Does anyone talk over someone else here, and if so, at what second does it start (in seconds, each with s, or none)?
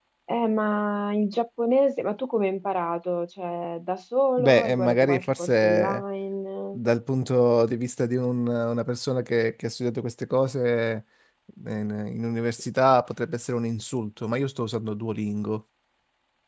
4.4 s